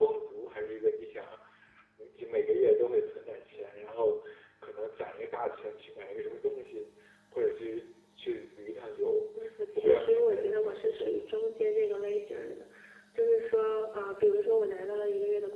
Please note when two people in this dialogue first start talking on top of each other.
10 s

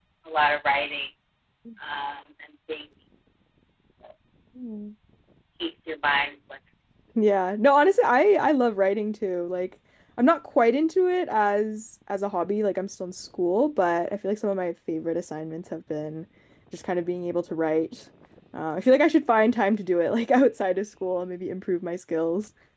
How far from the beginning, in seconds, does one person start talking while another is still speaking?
none

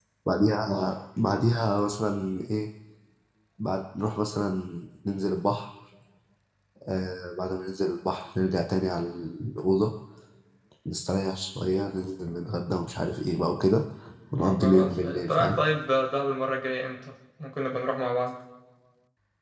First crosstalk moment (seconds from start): 14 s

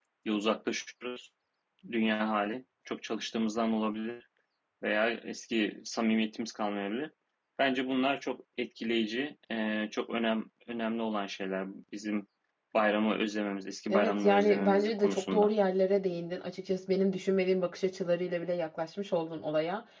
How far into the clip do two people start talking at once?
14 s

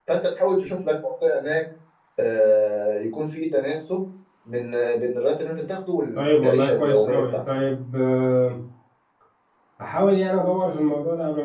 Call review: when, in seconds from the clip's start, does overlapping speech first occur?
6 s

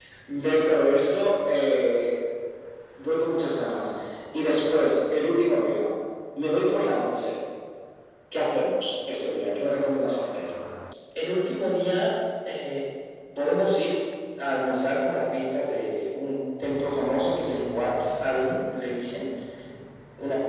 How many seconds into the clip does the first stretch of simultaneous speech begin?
none

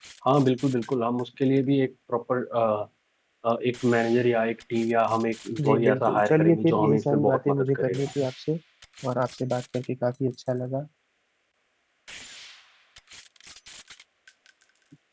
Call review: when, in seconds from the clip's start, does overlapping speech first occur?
6 s

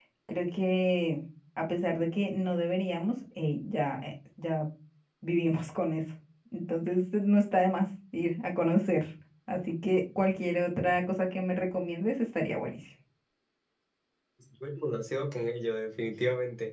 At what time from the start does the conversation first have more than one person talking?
none

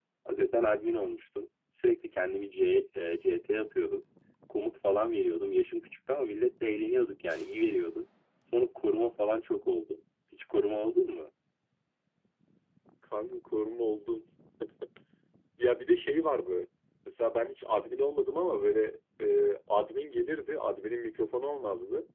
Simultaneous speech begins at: none

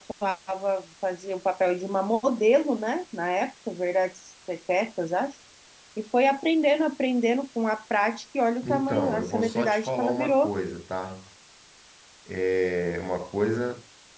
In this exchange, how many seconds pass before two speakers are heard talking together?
9 s

